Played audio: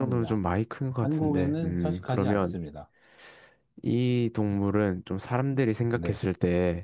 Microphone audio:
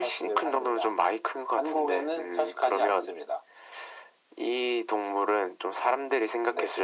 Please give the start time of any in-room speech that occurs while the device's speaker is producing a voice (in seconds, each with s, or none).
none